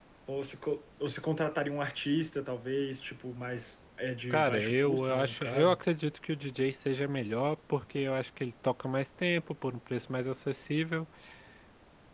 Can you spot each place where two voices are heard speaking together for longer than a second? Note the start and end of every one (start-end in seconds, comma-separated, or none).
4.3-5.8